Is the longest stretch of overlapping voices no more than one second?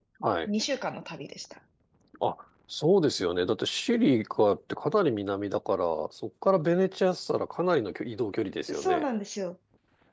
Yes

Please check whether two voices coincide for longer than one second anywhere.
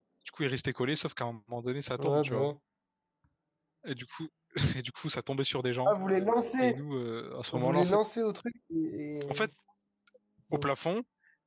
No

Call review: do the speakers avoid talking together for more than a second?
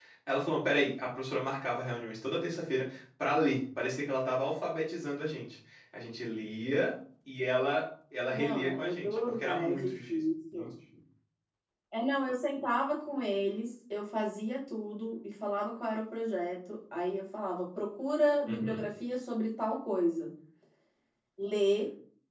No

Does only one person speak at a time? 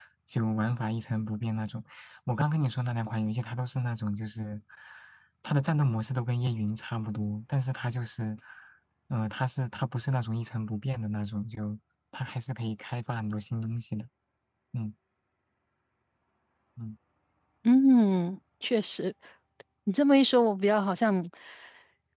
Yes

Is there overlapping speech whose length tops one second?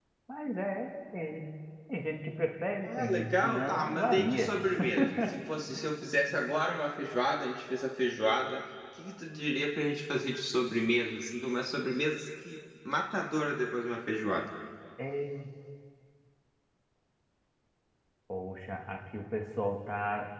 Yes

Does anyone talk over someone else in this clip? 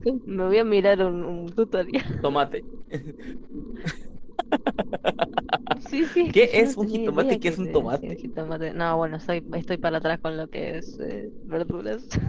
Yes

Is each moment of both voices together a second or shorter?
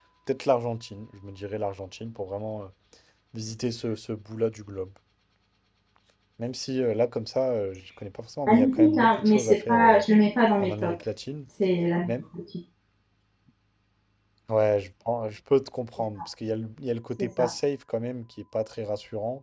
No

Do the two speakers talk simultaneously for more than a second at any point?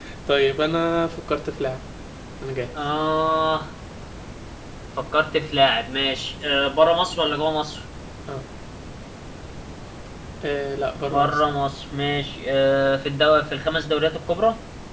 No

